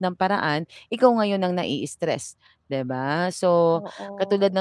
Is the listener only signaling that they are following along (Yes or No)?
Yes